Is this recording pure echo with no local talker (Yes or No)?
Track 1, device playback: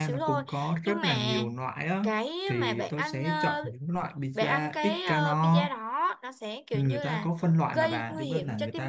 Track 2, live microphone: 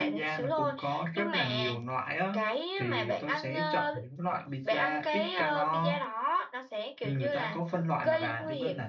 Yes